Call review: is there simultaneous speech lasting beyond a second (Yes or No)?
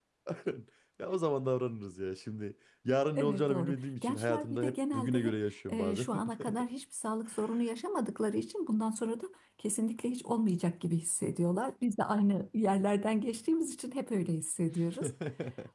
Yes